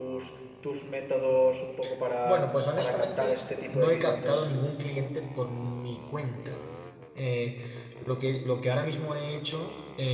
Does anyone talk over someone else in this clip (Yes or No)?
Yes